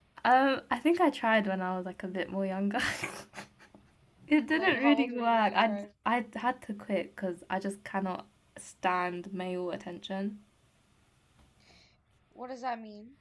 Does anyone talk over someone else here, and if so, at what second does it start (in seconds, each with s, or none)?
4.5 s